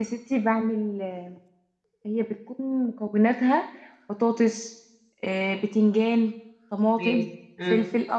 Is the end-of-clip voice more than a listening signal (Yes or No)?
No